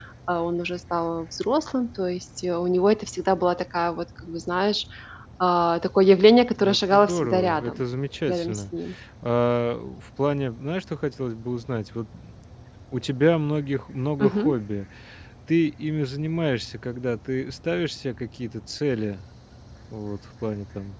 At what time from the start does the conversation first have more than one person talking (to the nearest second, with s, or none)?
7 s